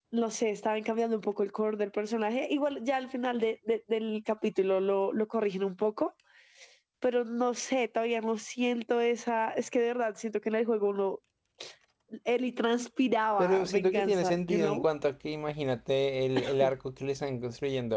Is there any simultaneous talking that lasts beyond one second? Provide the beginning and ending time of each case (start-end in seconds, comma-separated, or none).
13.4-14.8